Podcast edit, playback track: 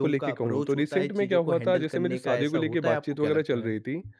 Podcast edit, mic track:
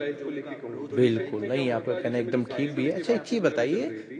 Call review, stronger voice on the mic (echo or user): user